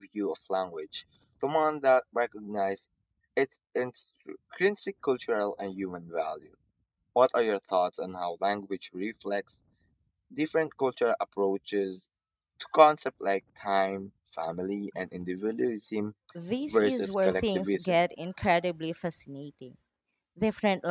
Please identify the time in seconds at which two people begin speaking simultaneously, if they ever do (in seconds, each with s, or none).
16.7 s